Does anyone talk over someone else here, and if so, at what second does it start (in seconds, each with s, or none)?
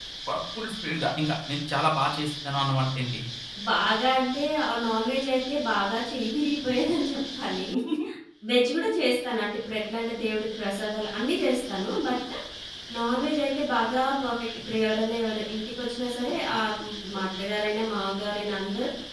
none